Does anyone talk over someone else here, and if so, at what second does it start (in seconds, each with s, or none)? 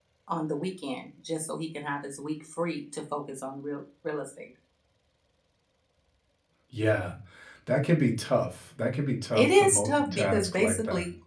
9.4 s